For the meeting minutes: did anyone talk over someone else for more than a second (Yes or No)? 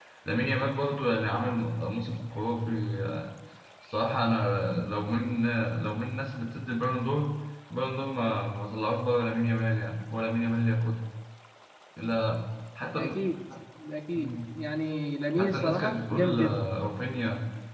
Yes